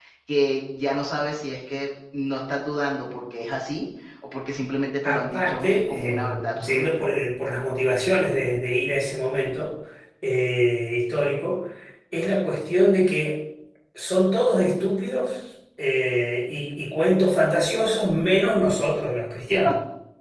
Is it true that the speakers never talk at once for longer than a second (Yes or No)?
No